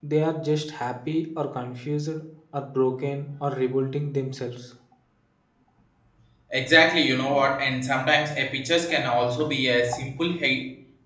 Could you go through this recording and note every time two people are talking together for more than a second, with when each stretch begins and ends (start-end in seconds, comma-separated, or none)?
none